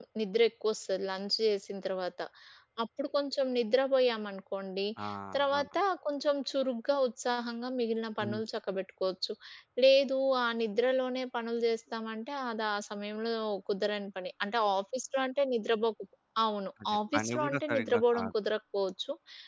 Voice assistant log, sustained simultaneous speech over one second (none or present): present